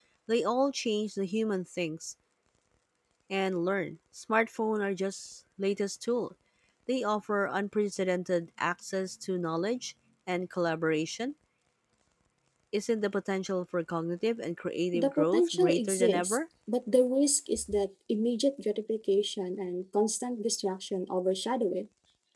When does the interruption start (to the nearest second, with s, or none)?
15 s